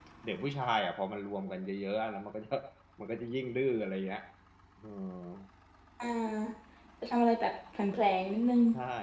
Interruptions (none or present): none